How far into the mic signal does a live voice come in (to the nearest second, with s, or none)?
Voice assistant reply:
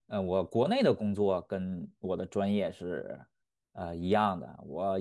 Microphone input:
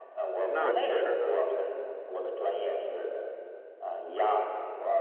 0 s